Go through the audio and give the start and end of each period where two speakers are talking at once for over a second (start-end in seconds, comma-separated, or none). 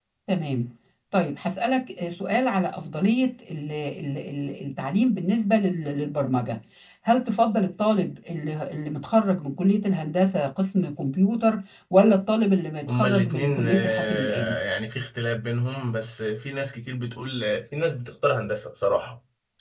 12.9-14.6